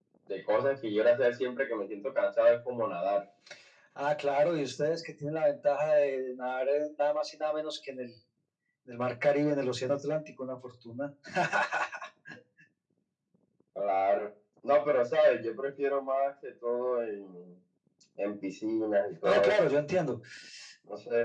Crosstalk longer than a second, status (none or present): none